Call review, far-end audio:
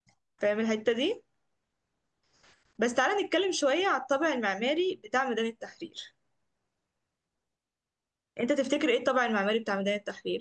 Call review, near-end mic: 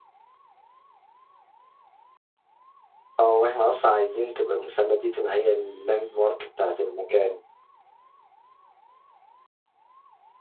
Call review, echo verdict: none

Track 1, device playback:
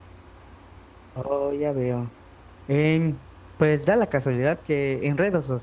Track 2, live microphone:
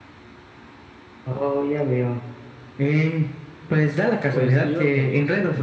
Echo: present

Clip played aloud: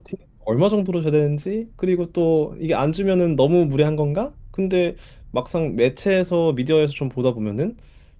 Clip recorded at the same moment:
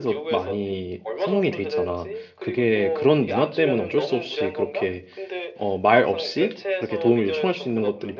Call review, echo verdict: present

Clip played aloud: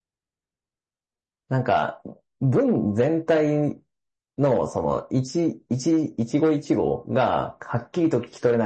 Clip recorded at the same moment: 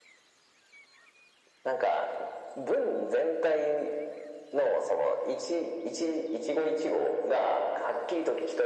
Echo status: present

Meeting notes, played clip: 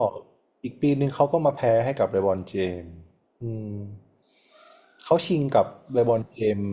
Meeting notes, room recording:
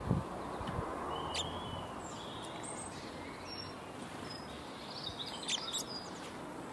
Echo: none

